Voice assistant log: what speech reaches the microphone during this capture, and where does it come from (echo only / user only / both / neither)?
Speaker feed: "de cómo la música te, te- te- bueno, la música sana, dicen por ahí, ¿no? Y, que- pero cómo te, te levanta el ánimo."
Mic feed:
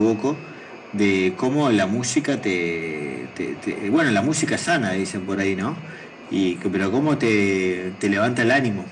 echo only